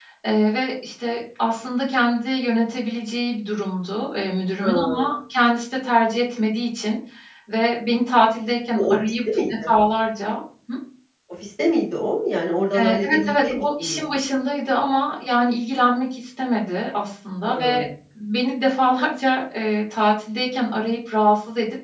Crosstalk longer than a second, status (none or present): present